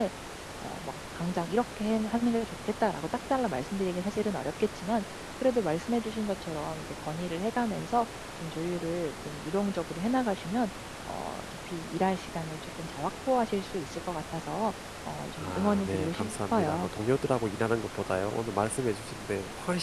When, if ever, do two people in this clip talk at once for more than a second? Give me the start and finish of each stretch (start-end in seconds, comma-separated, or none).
15.4-16.9